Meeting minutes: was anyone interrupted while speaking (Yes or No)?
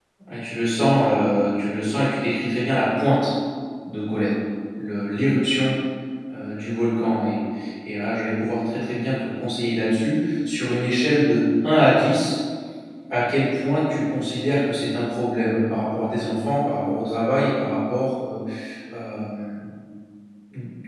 No